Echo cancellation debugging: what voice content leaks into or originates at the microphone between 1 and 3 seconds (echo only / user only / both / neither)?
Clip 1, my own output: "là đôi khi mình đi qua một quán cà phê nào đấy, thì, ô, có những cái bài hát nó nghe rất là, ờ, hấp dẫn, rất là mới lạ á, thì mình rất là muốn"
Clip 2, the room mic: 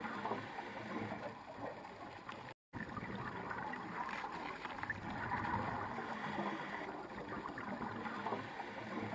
neither